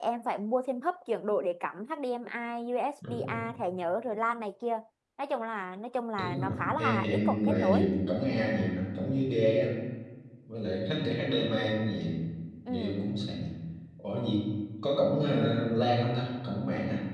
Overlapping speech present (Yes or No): Yes